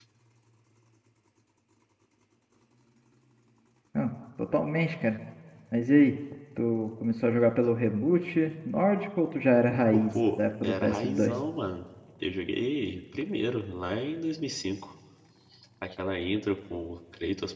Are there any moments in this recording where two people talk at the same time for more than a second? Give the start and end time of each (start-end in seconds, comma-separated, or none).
9.9-11.3